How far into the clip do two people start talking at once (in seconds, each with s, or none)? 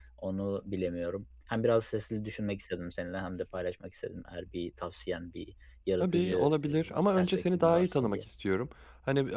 6.0 s